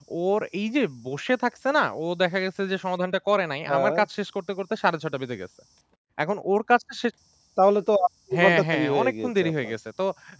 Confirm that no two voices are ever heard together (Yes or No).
No